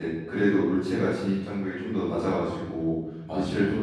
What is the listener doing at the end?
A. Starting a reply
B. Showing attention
B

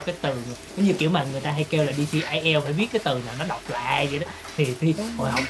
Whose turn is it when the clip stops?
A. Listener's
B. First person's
B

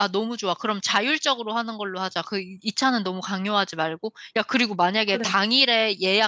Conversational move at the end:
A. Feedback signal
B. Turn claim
A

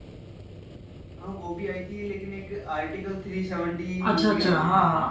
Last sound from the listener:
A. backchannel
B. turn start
B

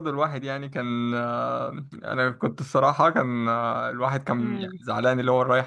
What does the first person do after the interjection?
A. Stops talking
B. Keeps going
B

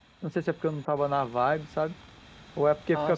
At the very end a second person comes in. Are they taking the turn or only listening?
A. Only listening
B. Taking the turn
A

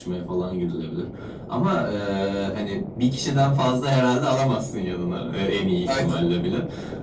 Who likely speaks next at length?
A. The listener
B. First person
B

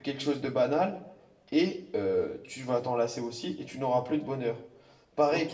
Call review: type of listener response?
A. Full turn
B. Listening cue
A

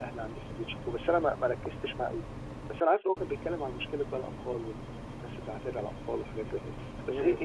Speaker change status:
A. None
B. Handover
A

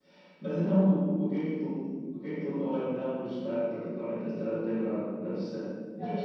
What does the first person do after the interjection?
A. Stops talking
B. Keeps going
A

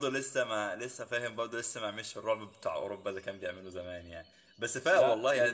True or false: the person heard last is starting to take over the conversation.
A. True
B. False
B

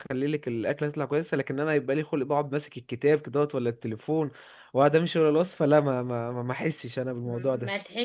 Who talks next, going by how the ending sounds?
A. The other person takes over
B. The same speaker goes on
A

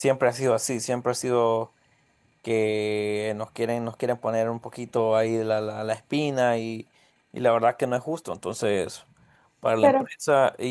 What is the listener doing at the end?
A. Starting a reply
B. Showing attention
B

